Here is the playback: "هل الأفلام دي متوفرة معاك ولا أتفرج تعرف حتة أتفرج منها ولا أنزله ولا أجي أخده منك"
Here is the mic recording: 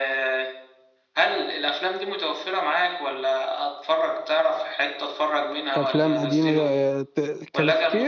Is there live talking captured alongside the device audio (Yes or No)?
Yes